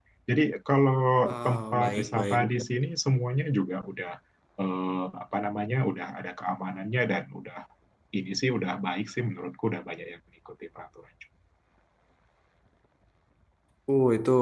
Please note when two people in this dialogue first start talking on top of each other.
1.3 s

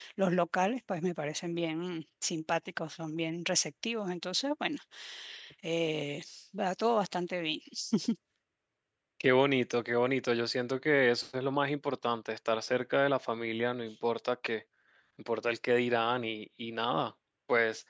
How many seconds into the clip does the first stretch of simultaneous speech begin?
none

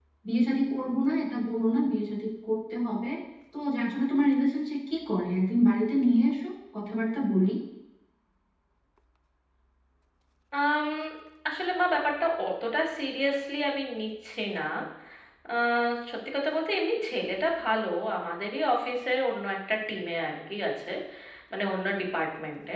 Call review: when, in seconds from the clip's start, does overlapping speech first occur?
none

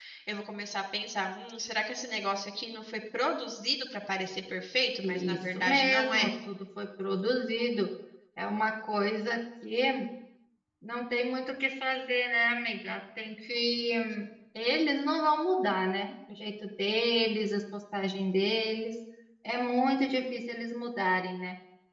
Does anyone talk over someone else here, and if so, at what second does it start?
5.0 s

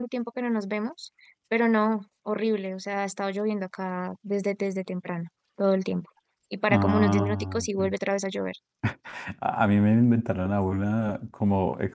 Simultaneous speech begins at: 6.7 s

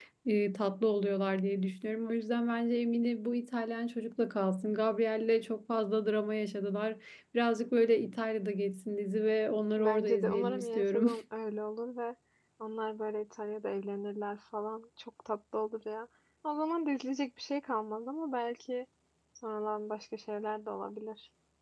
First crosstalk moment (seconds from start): 9.8 s

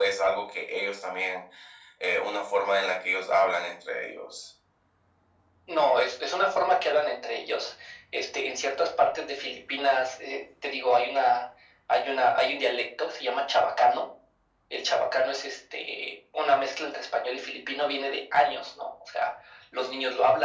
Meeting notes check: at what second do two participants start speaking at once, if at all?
none

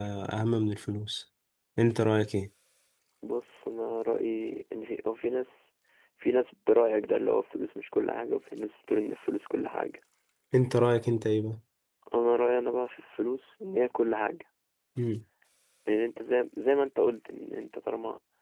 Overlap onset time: none

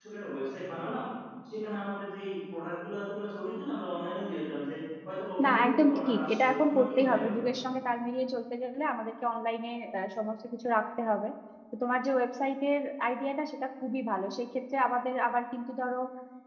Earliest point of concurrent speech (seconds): 5.4 s

